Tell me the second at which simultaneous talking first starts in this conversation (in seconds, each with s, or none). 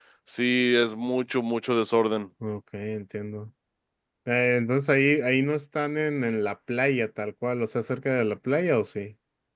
none